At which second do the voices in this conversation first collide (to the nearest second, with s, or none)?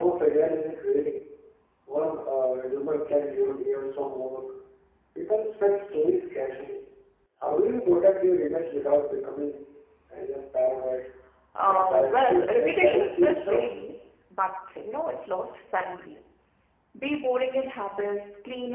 12 s